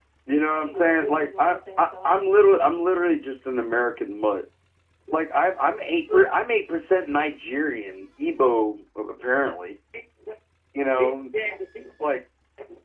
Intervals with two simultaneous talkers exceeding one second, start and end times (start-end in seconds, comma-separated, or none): 0.7-2.3